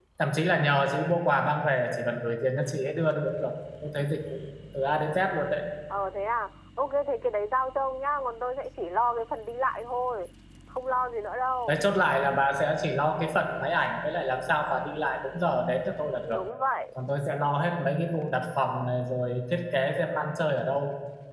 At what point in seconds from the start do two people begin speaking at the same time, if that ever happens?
none

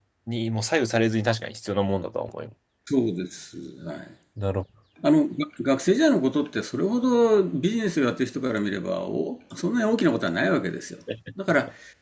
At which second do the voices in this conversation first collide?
none

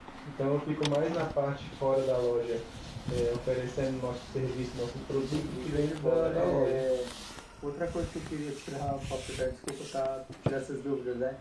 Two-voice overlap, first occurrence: 5 s

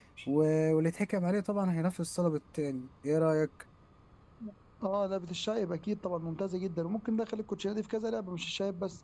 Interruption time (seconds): none

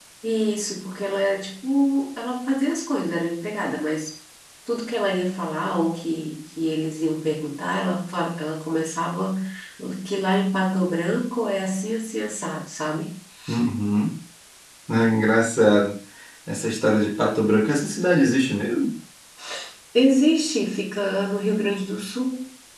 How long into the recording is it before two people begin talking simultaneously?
none

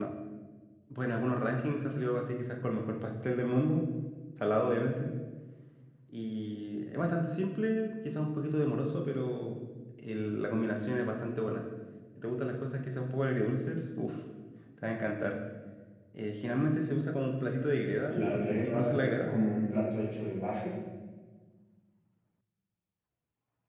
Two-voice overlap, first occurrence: 18 s

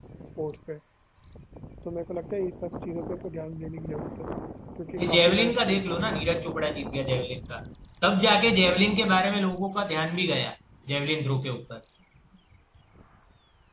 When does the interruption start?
5 s

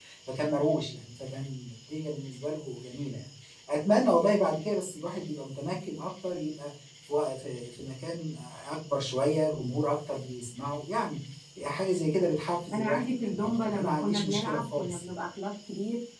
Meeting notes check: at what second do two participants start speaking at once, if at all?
13 s

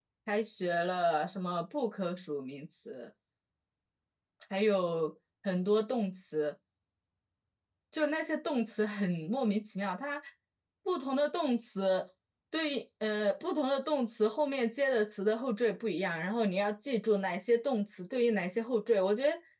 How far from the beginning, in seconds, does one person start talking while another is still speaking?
none

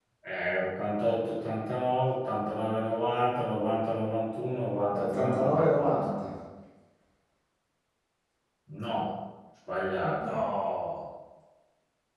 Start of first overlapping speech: 5 s

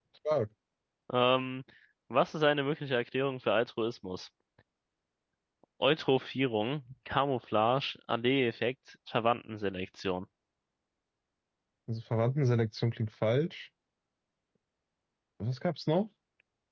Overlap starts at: none

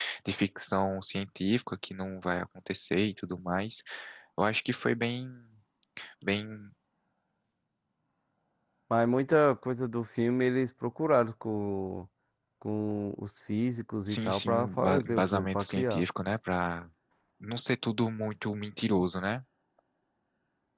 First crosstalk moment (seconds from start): 14 s

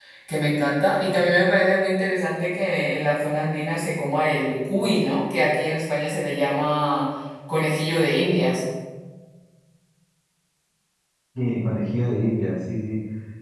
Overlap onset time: none

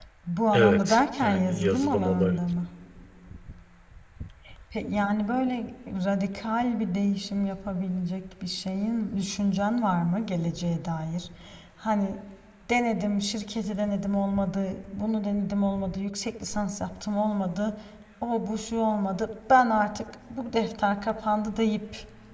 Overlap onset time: 1 s

